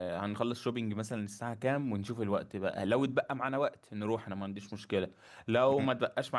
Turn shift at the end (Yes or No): No